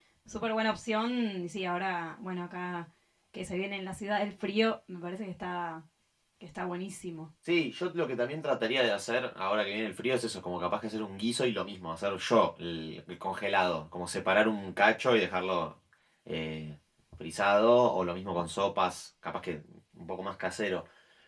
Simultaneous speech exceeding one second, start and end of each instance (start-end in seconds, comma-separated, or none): none